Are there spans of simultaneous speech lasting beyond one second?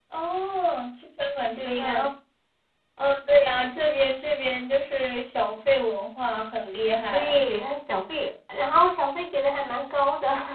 No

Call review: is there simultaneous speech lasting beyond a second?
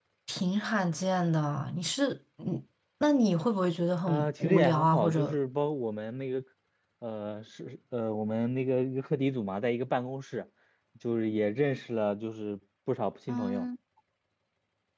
Yes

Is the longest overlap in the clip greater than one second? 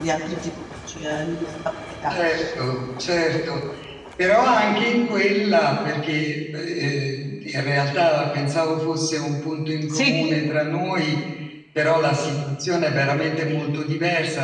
No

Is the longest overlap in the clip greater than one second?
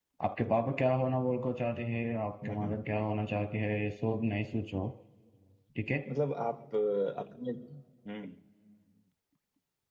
No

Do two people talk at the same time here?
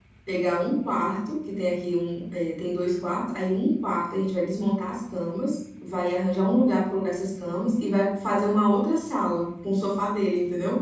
No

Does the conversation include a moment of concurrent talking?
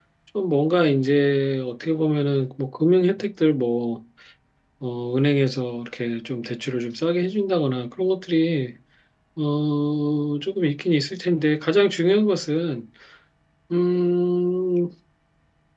No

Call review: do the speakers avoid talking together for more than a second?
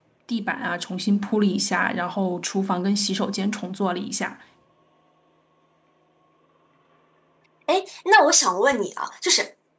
Yes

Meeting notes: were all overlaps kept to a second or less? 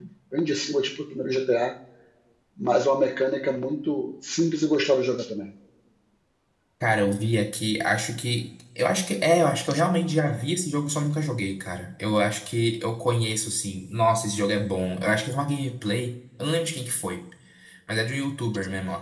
Yes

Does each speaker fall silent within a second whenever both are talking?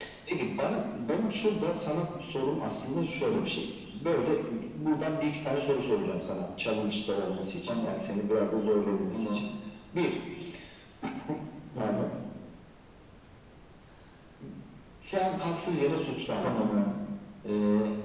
Yes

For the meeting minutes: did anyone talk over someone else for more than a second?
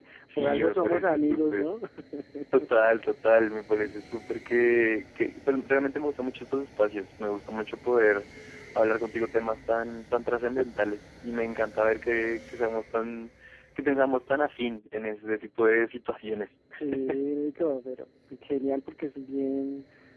Yes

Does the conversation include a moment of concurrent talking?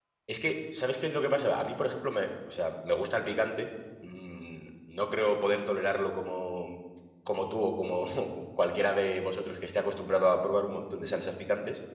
No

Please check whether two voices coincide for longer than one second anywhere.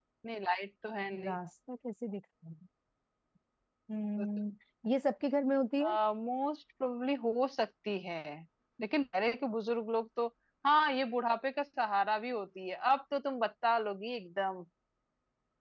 No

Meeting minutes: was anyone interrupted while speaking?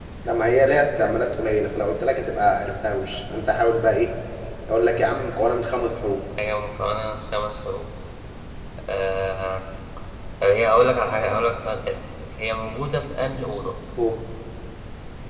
No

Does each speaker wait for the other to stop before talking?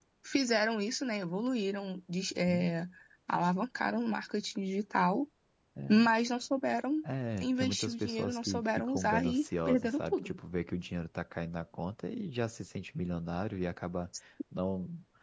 No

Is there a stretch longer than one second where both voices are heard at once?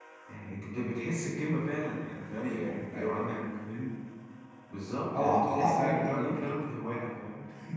Yes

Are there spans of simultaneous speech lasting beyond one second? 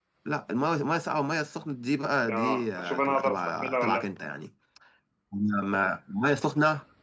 Yes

